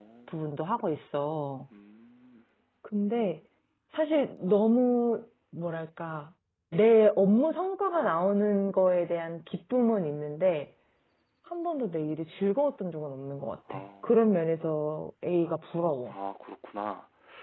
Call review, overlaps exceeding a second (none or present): none